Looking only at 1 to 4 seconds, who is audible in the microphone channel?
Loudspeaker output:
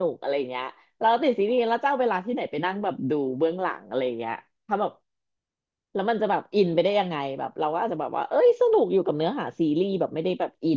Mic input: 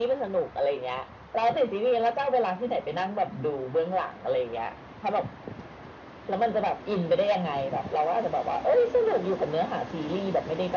echo only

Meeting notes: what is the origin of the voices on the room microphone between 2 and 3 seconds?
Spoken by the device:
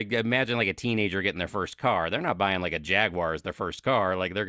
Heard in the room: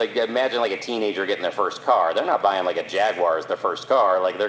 echo only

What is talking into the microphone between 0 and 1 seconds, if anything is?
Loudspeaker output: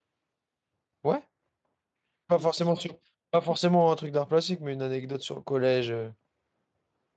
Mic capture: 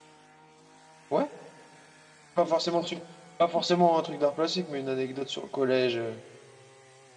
neither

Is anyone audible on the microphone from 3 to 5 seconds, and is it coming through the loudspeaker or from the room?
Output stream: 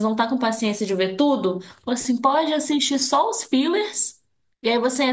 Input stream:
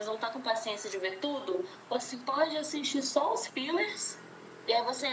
echo only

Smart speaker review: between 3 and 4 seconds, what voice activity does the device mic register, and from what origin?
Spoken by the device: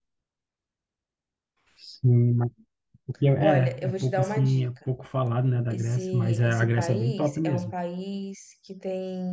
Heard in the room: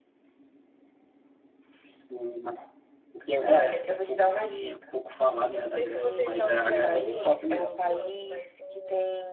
echo only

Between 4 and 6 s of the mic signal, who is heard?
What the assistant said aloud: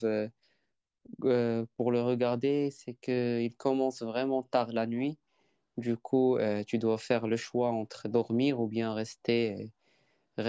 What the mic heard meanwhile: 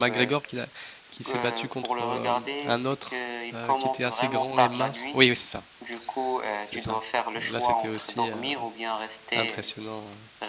both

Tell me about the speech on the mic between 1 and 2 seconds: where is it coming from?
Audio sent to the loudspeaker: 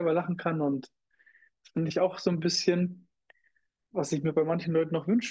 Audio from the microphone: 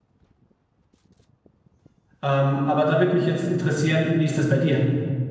neither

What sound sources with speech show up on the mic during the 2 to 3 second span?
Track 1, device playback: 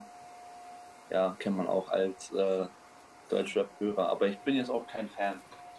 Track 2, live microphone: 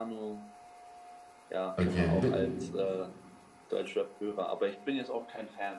both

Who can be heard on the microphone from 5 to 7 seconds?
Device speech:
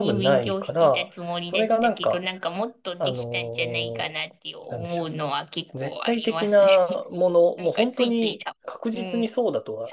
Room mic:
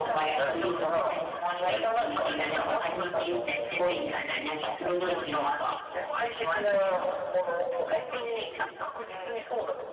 both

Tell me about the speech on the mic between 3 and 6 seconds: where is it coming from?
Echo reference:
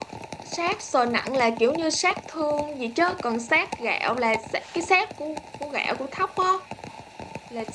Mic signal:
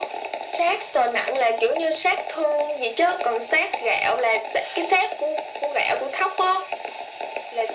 echo only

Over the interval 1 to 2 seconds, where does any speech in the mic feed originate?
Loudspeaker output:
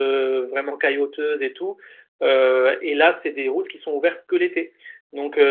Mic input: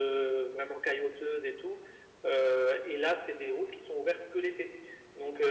echo only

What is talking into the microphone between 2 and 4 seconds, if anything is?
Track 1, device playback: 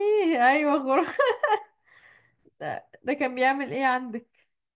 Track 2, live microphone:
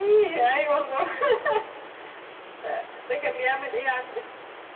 echo only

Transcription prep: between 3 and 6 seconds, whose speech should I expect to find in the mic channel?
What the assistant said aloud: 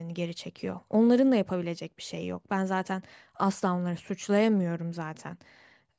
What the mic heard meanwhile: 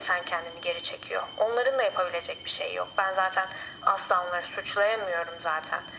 echo only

